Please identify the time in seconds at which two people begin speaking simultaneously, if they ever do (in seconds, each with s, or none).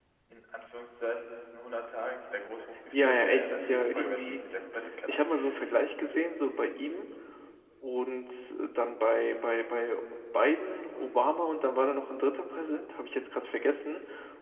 2.9 s